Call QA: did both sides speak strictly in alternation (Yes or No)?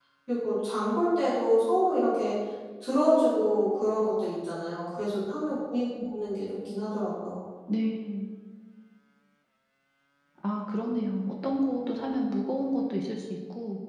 Yes